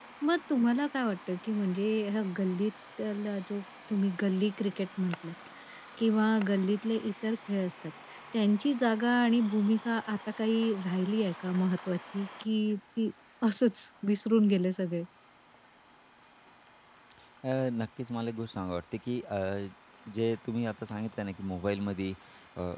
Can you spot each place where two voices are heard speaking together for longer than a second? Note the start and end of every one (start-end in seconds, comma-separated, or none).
none